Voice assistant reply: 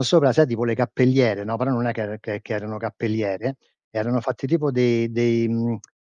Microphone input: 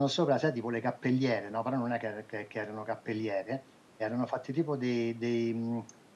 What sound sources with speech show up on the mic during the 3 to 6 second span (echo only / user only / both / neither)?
echo only